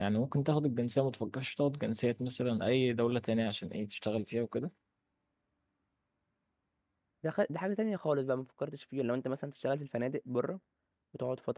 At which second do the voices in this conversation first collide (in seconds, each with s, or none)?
none